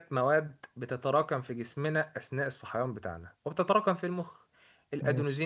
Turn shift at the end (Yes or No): No